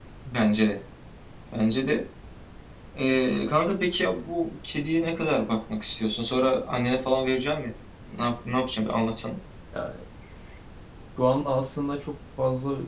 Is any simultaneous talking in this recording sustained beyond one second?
No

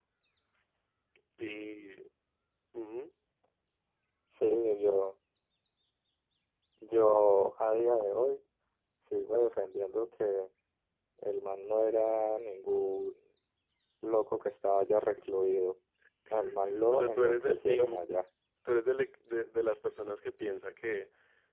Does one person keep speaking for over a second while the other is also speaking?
Yes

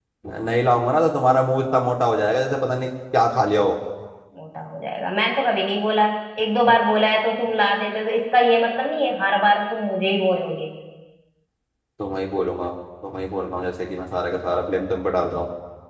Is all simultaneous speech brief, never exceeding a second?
Yes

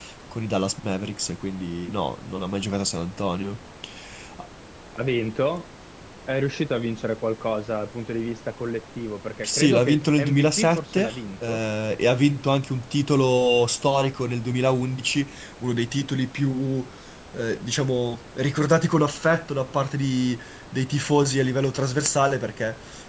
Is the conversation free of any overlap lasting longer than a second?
No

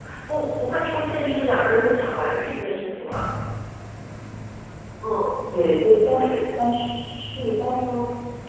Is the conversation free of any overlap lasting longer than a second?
Yes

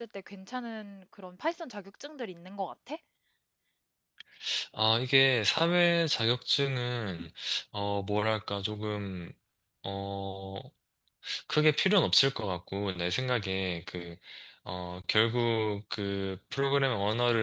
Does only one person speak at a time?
Yes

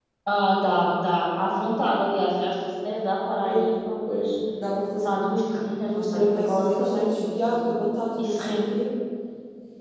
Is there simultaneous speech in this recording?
Yes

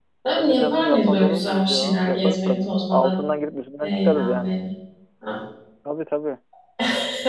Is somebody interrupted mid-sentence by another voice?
Yes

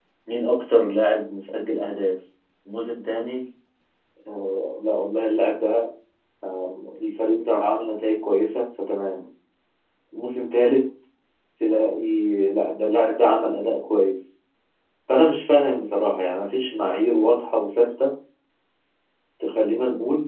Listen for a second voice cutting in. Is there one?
No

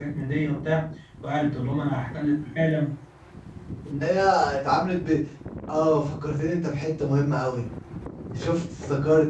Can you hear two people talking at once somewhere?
No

